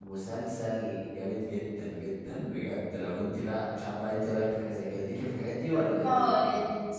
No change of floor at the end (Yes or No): No